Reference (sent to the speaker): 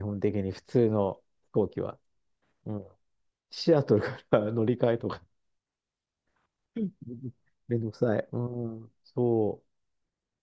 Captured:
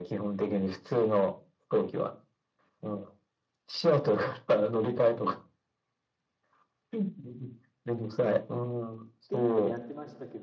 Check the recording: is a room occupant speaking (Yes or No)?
Yes